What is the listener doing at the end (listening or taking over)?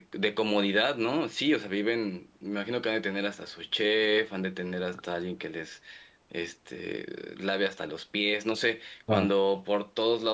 listening